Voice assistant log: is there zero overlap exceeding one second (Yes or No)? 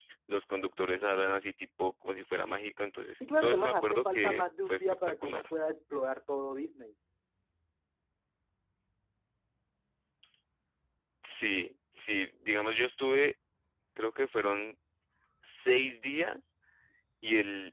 No